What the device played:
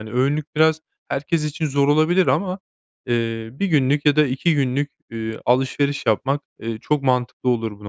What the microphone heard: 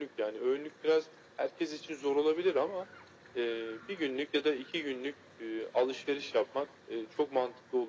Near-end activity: none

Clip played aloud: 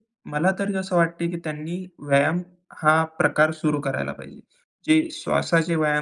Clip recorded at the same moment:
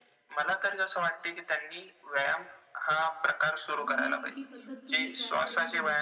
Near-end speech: present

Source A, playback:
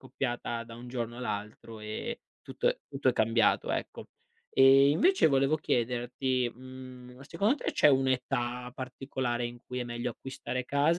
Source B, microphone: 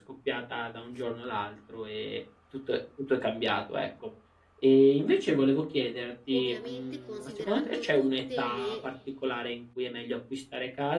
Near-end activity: present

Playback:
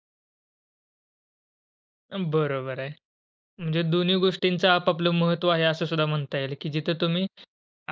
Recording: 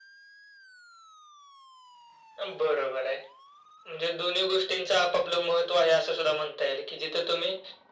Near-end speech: none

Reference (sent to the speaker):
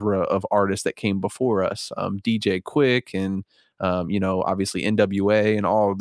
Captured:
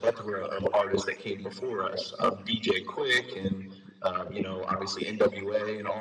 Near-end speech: none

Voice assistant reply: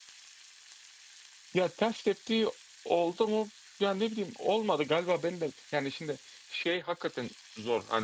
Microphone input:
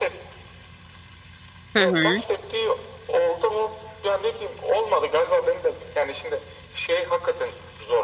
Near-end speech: present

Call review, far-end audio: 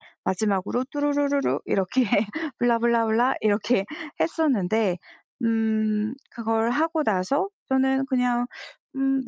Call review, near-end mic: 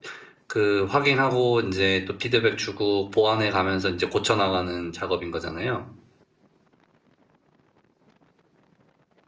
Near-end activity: present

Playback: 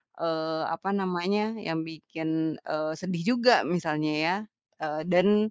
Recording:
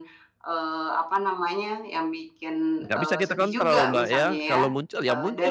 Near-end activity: present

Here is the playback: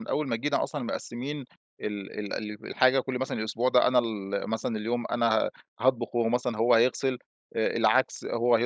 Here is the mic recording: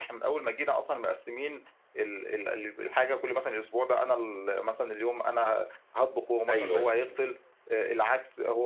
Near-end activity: present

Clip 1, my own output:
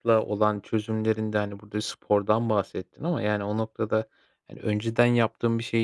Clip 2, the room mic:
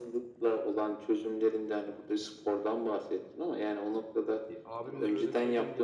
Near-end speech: present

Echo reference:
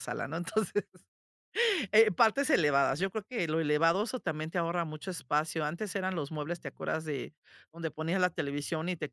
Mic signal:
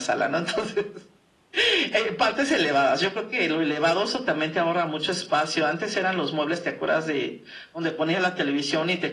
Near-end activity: none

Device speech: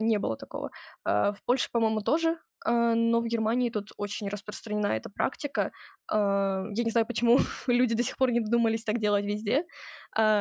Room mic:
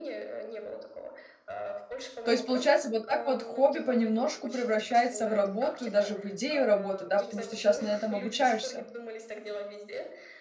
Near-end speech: present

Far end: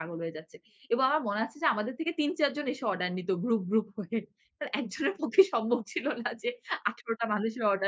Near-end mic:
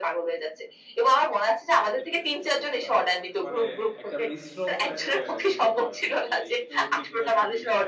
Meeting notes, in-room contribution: present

